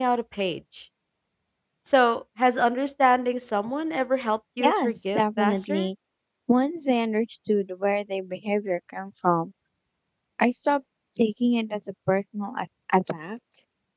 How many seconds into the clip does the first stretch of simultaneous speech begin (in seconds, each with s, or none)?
4.6 s